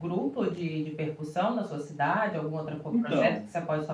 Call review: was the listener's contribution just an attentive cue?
Yes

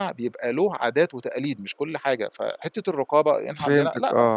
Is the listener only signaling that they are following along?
No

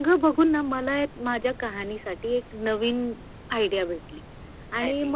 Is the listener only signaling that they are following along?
Yes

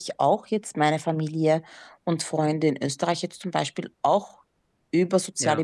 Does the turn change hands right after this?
No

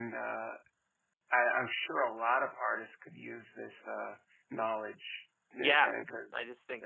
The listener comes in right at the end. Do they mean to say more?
Yes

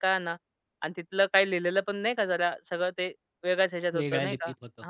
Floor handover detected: Yes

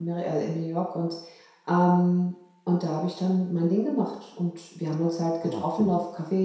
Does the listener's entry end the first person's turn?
No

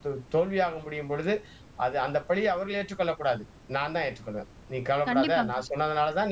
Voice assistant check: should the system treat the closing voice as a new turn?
No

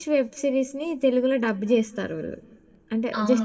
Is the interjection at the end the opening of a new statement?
Yes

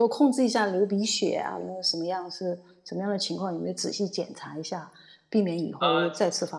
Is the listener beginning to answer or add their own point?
No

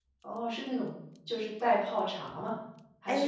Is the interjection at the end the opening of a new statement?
Yes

